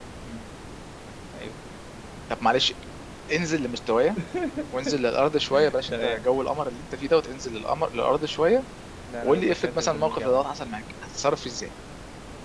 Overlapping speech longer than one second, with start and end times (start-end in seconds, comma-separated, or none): 9.2-10.5